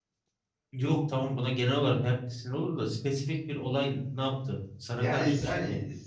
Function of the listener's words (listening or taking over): taking over